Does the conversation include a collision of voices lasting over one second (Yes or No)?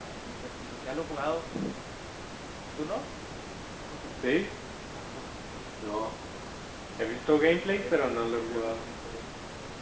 Yes